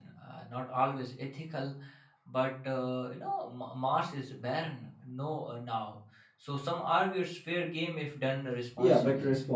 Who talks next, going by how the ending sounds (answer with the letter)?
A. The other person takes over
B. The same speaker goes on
A